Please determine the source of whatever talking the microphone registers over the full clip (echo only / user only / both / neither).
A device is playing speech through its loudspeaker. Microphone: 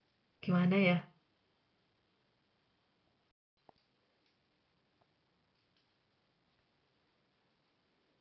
user only